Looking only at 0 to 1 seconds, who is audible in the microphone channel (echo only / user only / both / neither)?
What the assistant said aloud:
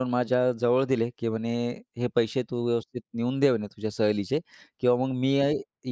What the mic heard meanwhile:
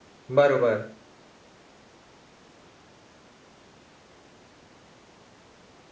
user only